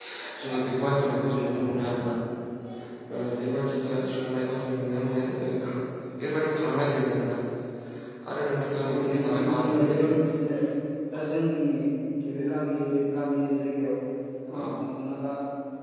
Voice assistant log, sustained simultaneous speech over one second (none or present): present